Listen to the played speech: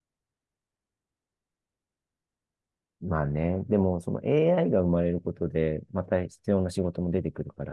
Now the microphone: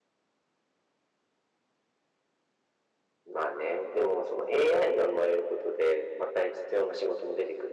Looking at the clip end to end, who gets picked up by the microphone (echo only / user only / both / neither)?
echo only